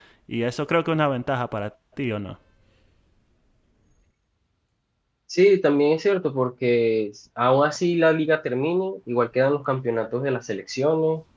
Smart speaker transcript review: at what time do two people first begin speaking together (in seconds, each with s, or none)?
none